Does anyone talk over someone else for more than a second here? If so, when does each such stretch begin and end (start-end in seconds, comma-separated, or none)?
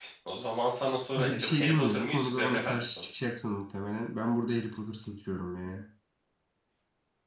1.2-3.0